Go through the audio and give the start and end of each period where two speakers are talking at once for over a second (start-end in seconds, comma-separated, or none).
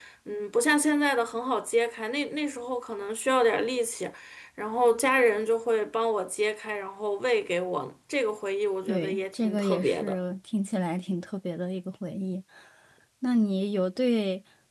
8.9-10.2